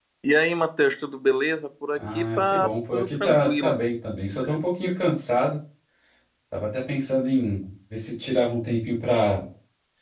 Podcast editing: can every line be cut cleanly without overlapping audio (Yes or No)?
No